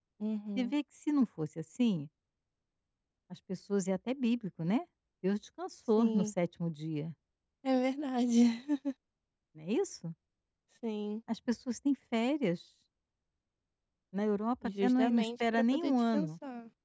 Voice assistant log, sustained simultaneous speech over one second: present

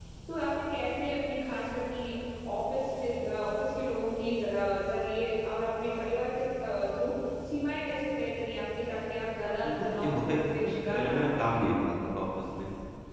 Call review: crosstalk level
present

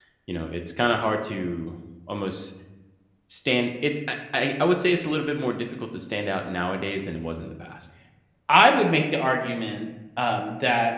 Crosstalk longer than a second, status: none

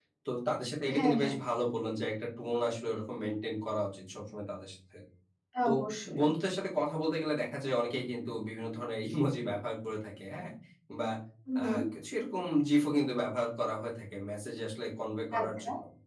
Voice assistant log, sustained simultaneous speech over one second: none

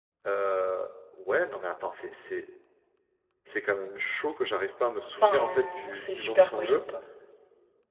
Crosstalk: present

